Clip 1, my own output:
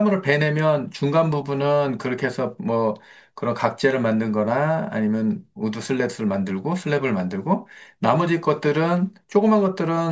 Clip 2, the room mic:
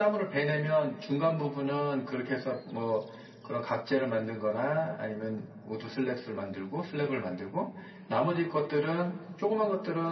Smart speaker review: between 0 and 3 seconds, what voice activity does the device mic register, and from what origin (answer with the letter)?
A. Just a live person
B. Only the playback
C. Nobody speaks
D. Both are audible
B